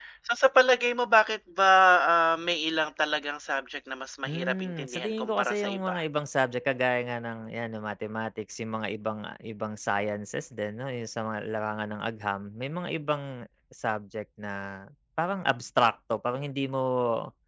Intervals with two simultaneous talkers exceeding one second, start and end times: 4.2-6.0

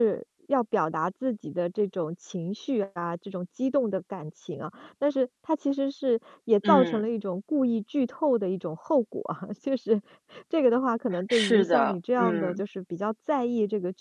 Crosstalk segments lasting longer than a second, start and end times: 11.3-12.6

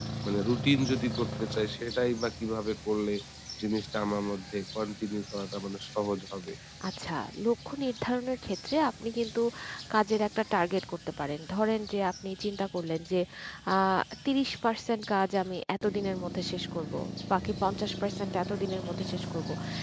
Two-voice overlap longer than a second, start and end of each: none

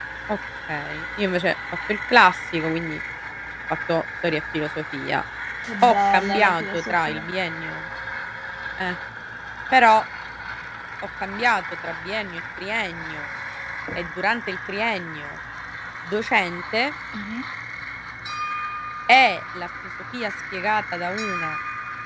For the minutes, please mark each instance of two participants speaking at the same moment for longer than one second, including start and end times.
5.8-7.2

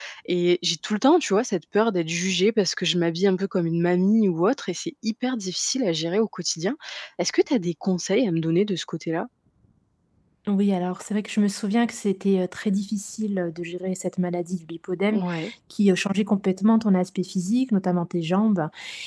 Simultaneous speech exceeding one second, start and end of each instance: none

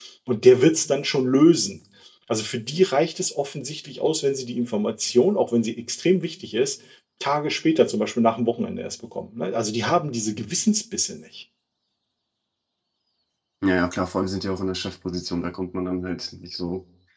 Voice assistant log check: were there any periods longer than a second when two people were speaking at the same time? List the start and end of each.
none

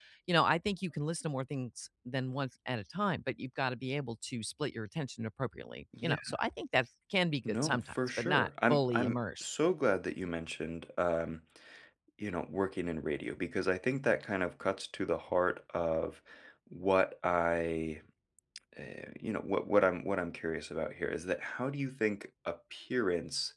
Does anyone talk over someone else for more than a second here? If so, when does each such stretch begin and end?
7.5-9.5

